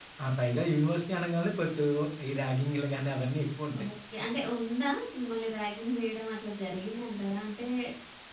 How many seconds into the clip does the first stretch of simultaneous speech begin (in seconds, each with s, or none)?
none